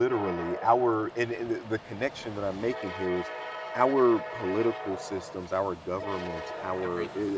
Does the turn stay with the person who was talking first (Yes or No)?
Yes